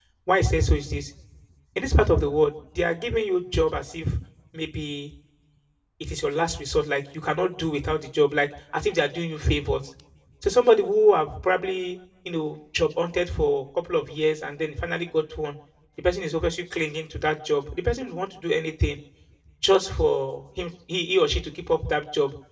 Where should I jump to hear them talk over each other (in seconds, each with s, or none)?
none